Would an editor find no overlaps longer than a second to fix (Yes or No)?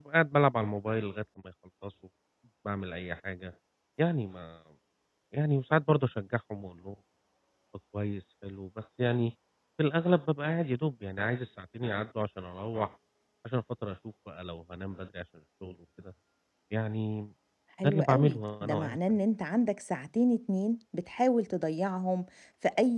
No